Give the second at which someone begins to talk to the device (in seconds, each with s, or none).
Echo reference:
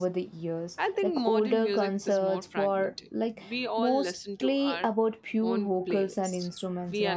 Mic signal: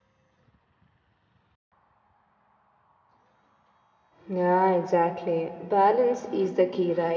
4.3 s